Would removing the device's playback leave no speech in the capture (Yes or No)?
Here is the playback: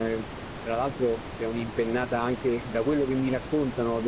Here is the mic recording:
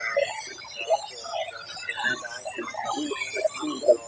Yes